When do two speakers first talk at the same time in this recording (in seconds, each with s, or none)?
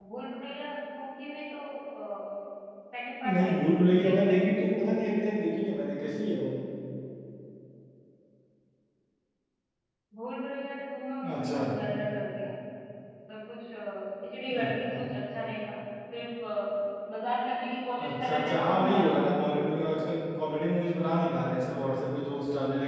3.2 s